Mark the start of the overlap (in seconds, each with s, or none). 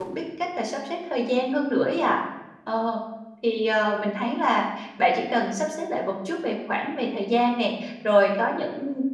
none